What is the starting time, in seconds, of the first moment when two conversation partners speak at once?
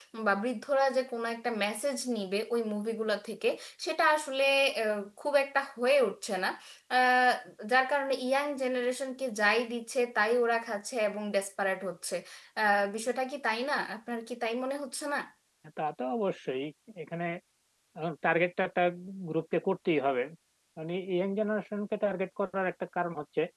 none

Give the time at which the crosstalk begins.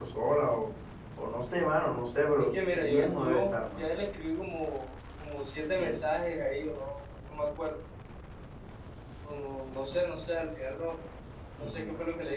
2.4 s

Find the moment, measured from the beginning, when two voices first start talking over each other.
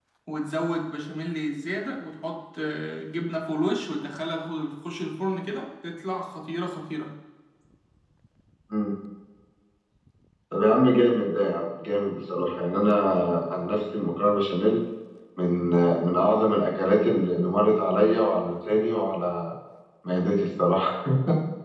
none

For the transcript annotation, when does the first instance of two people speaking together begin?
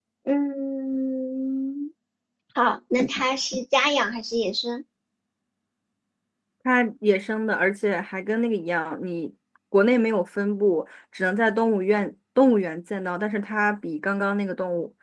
none

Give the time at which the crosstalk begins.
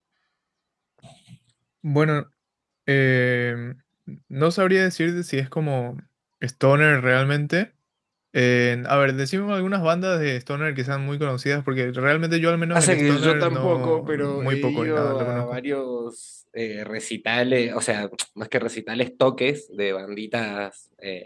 12.7 s

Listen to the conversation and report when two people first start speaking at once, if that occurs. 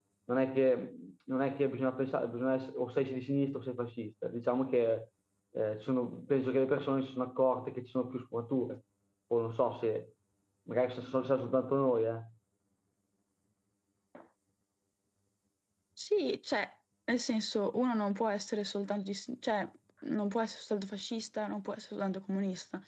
none

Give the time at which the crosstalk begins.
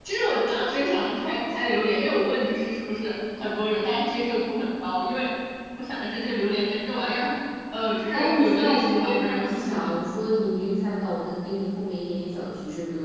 8.1 s

